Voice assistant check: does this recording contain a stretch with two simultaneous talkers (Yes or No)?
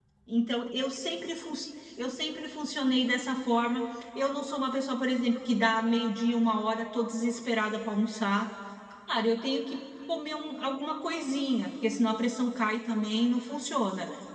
No